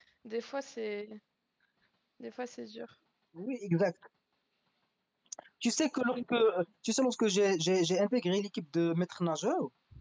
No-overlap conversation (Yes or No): Yes